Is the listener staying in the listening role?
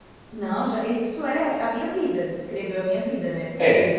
Yes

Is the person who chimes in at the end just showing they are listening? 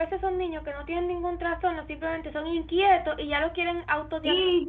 No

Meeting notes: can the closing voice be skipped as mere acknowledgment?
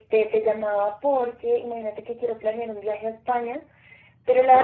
Yes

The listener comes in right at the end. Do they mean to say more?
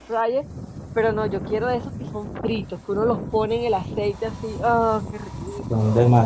Yes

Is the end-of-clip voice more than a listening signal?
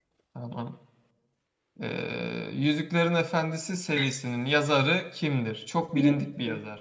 Yes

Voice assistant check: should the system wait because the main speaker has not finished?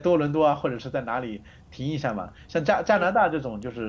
Yes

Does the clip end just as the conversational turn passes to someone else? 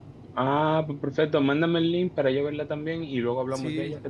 Yes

